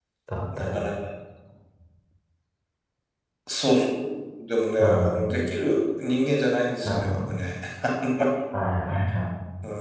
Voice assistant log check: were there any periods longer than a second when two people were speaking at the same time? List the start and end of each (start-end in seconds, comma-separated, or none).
none